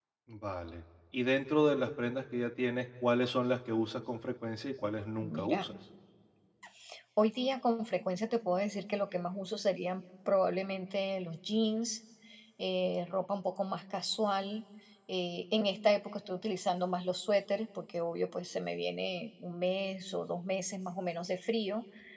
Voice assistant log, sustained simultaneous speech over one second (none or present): none